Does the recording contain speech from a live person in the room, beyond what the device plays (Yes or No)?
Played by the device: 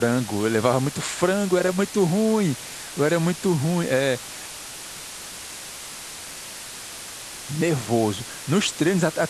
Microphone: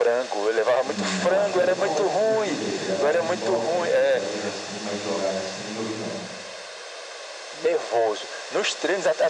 Yes